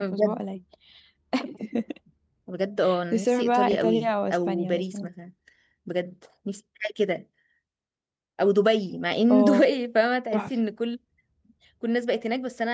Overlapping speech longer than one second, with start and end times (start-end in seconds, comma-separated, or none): 3.1-5.1